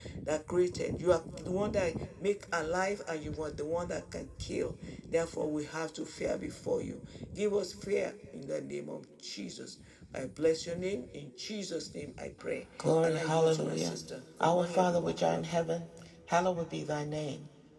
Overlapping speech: Yes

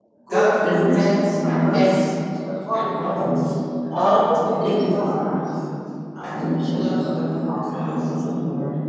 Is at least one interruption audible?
Yes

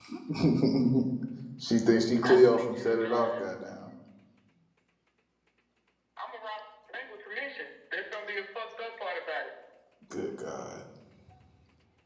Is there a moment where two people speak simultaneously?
No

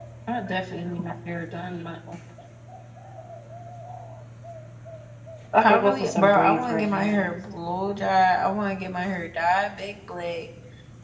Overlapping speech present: Yes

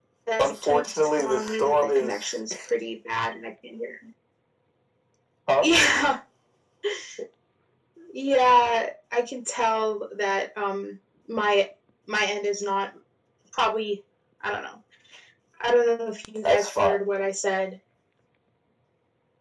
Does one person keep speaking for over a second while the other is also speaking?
Yes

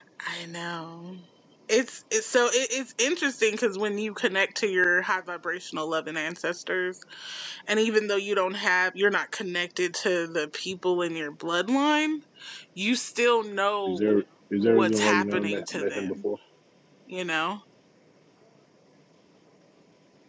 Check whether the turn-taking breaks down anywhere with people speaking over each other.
Yes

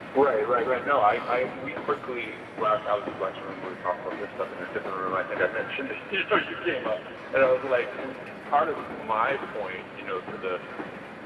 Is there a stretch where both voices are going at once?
No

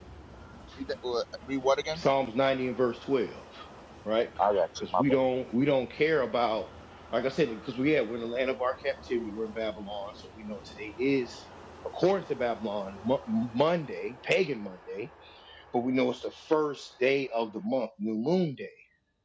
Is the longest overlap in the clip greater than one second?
No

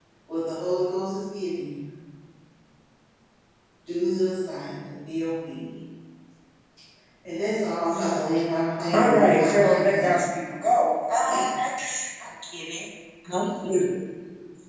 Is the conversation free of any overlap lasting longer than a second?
No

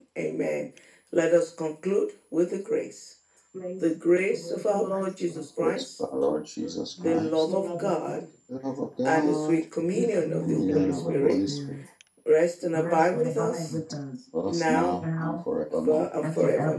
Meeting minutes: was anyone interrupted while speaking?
Yes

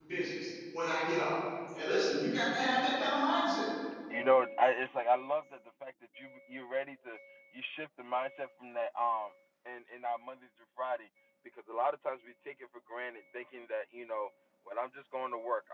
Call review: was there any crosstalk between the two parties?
No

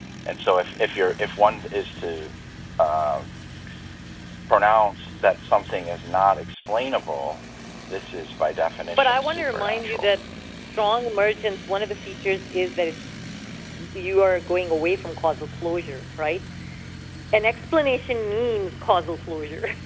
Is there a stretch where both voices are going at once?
Yes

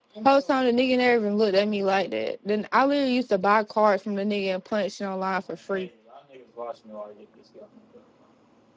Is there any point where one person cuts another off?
No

